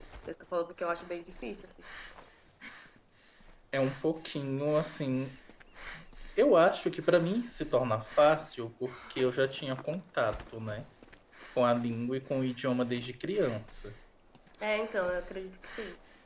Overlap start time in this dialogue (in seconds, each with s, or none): none